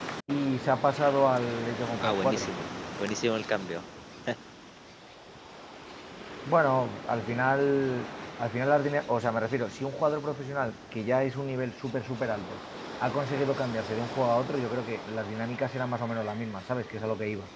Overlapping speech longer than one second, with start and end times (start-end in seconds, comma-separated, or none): none